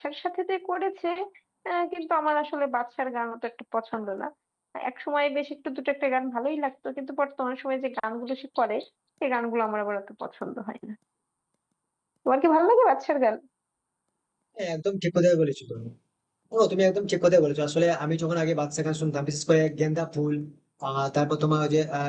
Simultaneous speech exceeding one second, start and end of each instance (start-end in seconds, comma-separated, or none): none